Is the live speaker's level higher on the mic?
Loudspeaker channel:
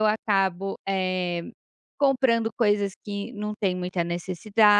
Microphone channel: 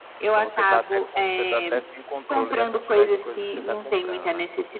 No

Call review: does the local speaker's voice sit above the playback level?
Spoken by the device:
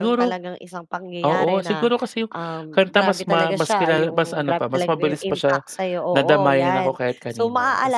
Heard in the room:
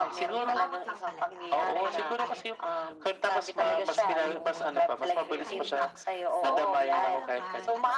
No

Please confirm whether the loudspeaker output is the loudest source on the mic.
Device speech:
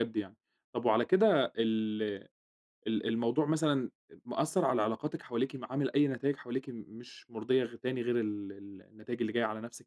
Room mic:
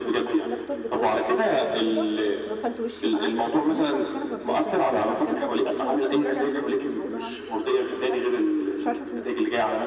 Yes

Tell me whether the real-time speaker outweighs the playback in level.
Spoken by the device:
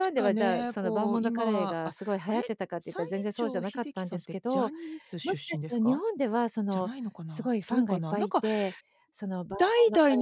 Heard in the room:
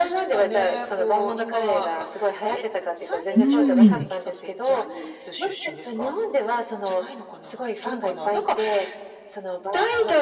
Yes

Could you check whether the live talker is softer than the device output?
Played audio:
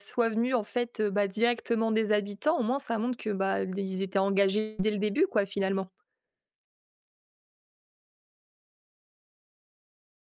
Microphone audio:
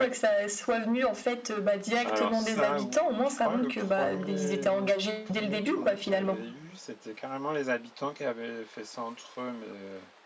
Yes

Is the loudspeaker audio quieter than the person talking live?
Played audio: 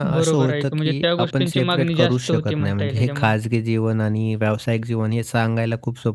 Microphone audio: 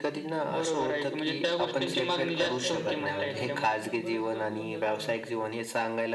No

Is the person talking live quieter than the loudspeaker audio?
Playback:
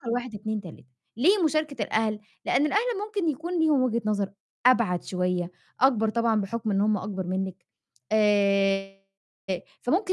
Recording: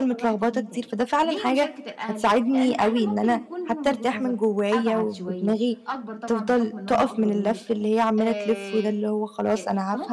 No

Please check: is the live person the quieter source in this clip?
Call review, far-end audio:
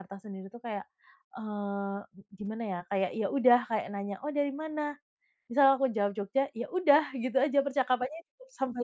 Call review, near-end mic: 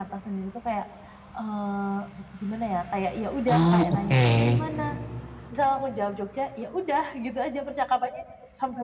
No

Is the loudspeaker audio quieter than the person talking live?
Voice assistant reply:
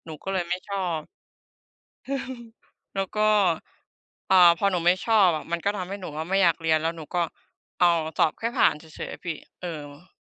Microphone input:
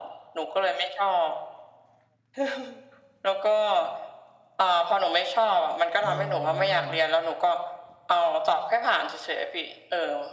No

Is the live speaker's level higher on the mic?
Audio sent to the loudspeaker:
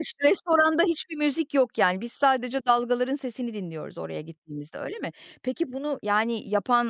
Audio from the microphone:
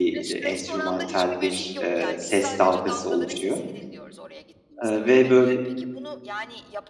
Yes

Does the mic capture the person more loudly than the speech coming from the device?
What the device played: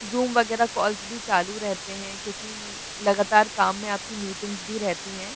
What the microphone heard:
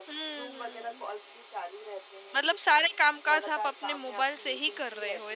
Yes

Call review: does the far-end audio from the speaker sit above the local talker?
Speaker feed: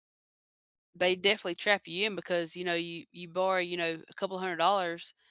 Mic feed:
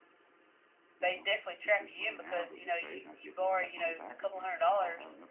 Yes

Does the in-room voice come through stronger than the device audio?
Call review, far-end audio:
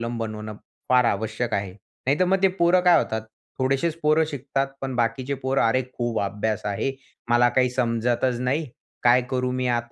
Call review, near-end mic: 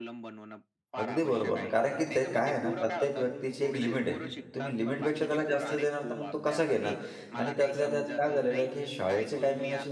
Yes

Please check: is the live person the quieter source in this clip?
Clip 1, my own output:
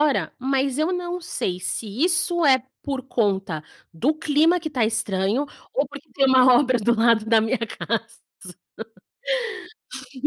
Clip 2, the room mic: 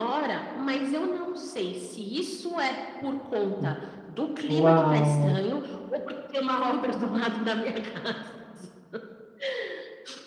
No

